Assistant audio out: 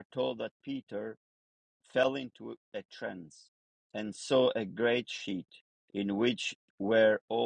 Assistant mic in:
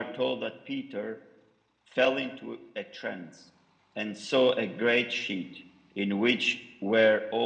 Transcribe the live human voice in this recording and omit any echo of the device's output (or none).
none